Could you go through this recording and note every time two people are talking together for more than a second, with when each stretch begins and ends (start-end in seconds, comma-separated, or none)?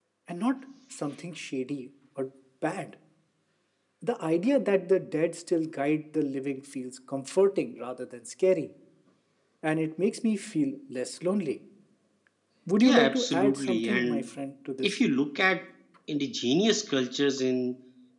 12.8-14.2